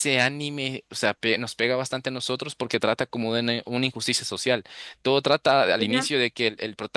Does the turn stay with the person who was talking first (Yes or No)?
Yes